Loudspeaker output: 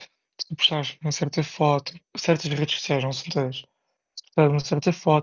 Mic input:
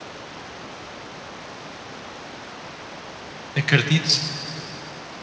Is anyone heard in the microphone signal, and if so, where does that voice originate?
user only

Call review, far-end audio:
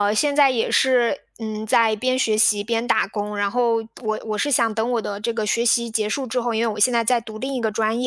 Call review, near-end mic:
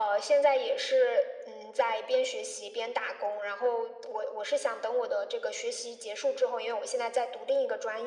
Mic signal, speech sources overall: echo only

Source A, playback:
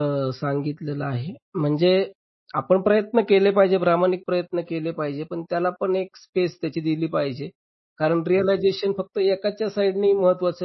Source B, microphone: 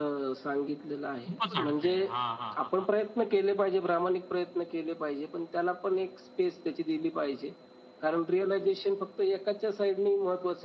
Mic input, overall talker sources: both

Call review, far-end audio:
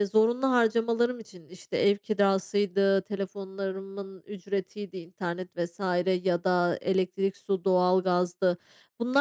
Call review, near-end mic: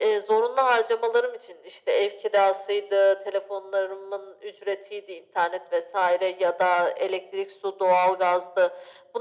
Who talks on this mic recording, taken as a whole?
echo only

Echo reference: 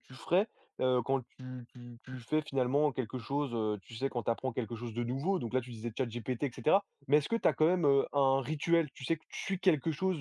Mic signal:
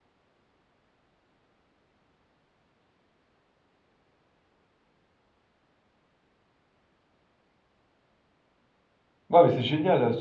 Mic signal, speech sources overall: user only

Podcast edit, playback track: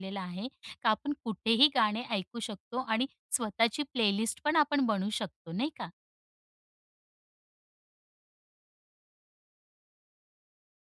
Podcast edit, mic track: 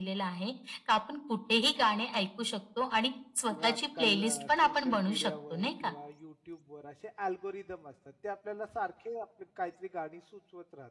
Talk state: both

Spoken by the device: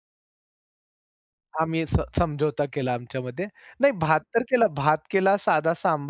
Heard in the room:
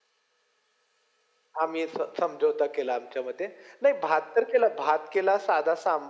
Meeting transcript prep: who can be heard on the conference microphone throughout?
echo only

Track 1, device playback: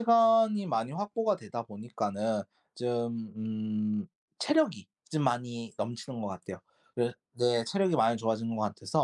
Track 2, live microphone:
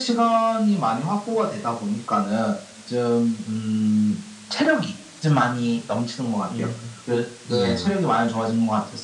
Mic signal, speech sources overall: both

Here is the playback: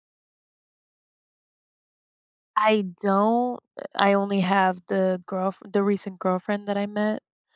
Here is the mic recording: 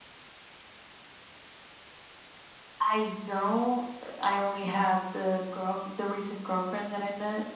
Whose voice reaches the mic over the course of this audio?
echo only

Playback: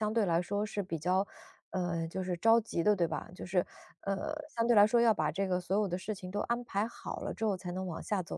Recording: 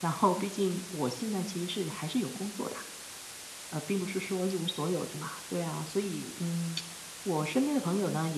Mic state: user only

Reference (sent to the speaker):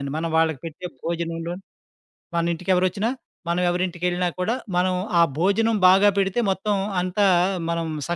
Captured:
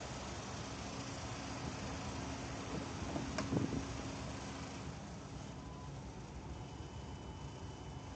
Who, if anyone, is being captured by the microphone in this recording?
neither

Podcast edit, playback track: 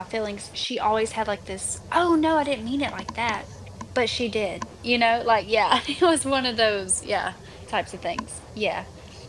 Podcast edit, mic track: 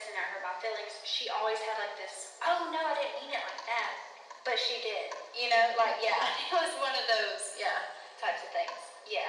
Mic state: echo only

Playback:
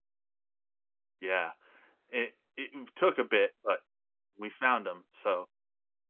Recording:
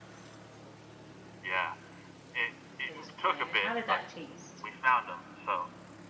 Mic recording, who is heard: both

